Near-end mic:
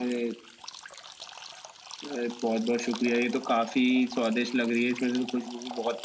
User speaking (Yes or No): No